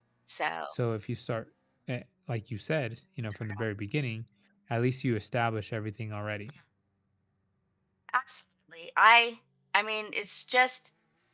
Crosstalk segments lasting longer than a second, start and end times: none

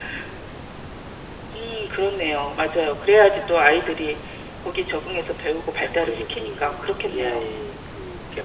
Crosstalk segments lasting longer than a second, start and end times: 6.0-7.4

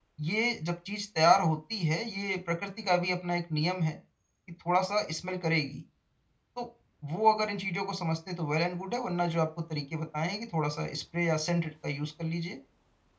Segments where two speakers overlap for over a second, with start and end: none

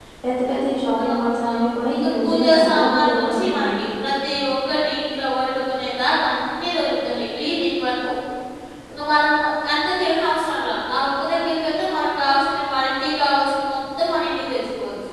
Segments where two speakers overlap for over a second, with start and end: 1.1-3.9

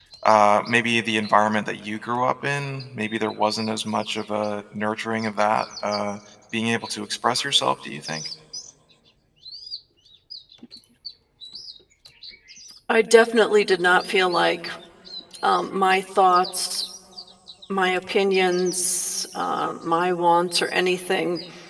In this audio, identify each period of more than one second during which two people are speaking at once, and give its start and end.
none

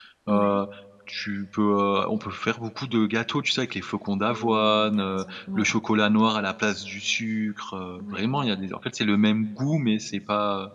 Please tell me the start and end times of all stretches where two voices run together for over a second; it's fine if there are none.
4.3-5.7

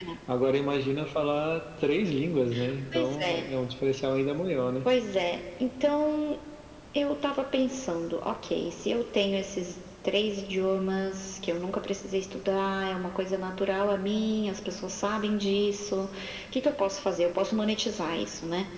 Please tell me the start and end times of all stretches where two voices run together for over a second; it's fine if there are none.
none

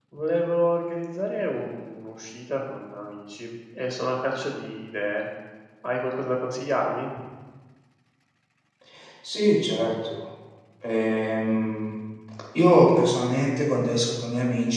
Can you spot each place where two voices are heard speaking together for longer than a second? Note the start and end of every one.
none

